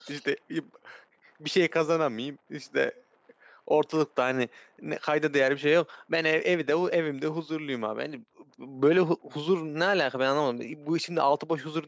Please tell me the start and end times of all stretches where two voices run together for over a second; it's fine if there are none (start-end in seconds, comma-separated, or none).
none